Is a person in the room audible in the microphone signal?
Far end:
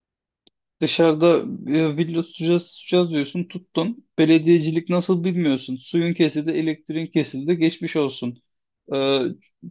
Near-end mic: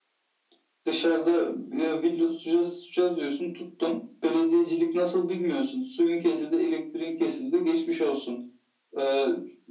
No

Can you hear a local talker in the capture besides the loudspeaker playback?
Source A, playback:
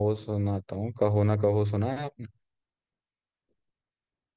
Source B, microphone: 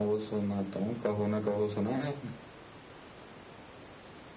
No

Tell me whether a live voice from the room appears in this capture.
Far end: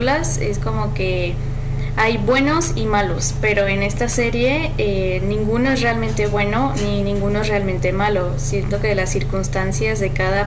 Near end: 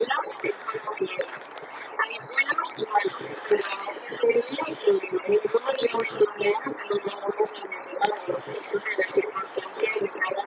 No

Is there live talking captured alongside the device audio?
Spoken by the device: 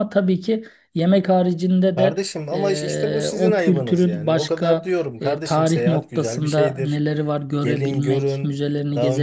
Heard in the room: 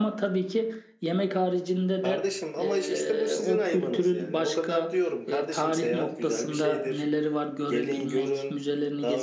No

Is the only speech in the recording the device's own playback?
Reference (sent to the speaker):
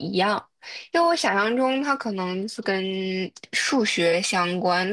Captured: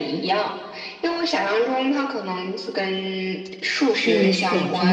No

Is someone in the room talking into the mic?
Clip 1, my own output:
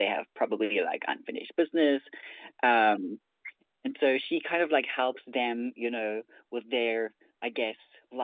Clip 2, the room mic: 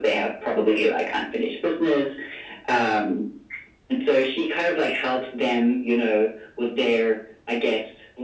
No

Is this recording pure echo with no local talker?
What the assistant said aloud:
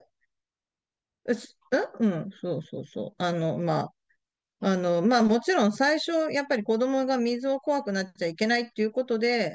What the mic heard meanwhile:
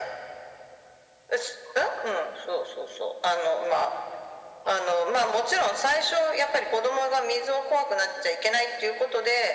Yes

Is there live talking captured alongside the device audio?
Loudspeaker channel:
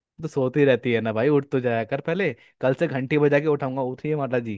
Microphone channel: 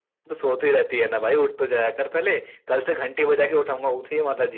No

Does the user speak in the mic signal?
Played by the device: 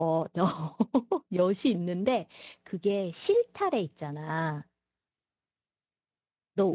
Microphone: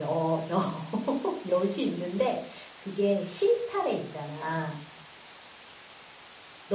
No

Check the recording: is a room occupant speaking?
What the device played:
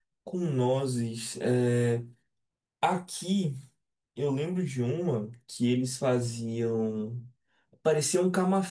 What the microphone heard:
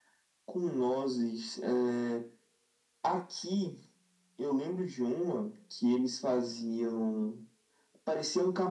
No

